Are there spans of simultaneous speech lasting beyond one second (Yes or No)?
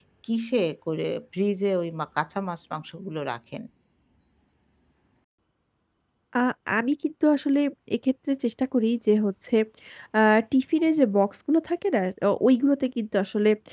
No